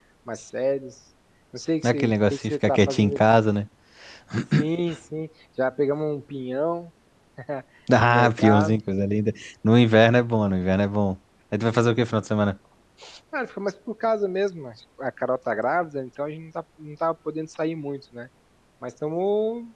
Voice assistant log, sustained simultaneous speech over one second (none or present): present